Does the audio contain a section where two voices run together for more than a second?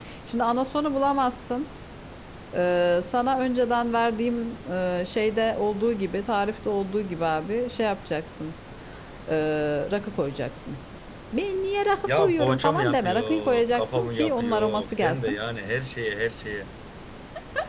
Yes, from 12.0 s

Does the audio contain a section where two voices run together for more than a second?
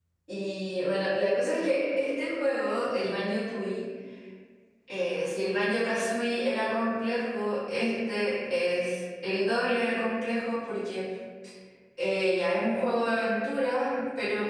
No

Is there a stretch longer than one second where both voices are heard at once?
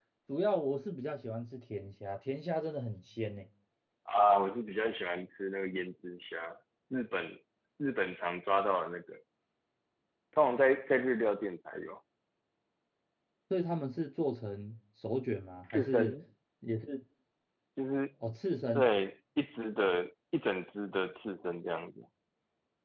No

